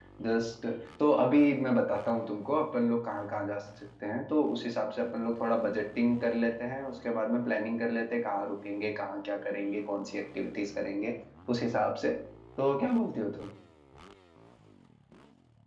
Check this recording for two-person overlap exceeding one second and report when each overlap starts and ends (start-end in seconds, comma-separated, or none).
none